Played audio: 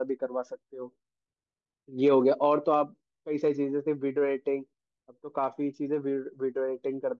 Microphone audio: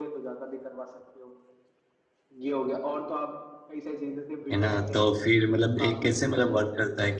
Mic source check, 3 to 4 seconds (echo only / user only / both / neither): echo only